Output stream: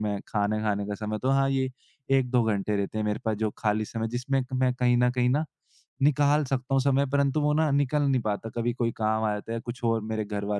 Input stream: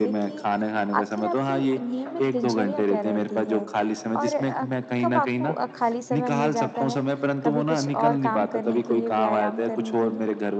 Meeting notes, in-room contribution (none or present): present